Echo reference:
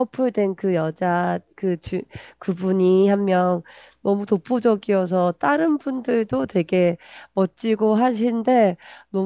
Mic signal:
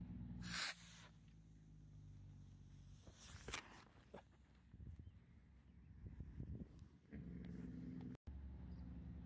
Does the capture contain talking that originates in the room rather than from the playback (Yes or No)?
No